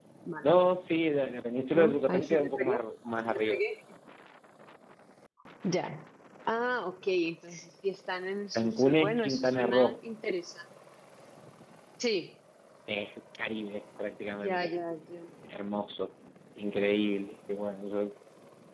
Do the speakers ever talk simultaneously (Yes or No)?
Yes